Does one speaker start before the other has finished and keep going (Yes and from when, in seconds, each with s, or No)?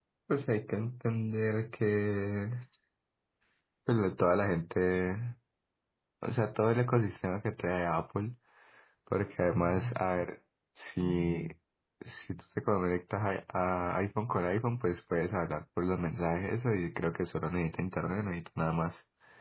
No